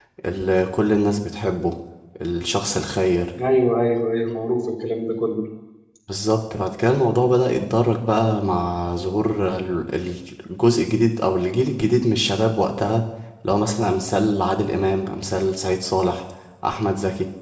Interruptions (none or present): none